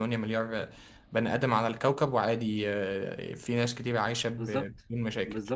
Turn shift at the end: Yes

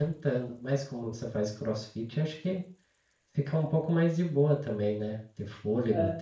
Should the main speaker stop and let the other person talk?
Yes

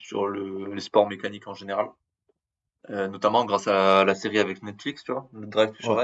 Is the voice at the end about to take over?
No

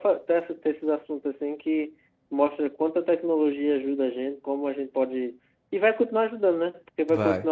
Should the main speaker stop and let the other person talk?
No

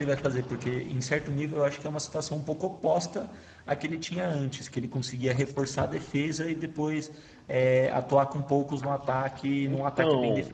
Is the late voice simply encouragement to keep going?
No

